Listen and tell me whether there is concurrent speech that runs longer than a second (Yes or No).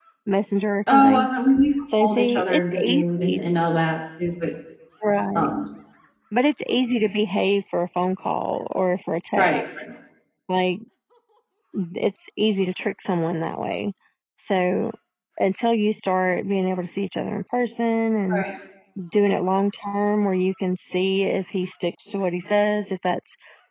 Yes